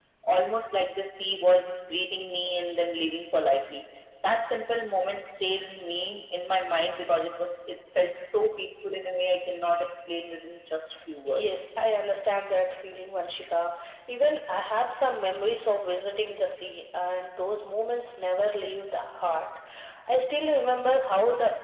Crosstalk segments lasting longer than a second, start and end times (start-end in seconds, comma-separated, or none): none